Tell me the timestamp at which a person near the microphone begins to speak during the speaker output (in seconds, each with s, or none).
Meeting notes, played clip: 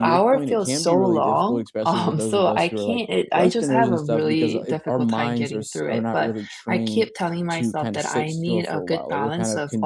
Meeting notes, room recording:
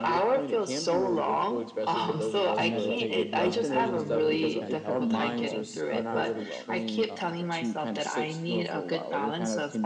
2.5 s